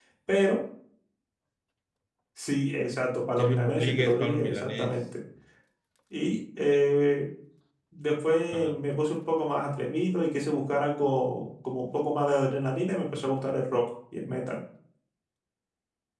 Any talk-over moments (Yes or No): Yes